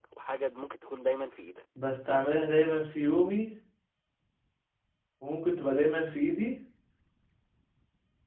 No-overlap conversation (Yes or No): Yes